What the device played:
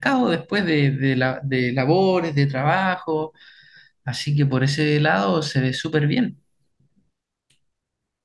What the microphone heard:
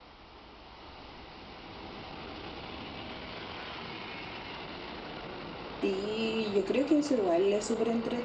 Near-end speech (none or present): present